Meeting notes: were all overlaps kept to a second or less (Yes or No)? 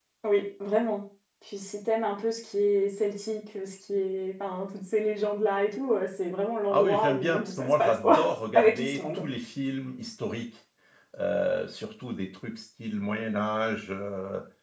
No